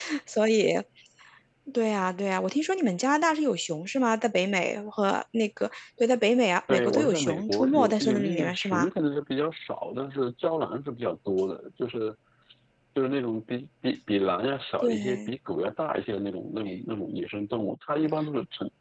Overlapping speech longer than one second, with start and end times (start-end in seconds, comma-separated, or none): 6.7-8.9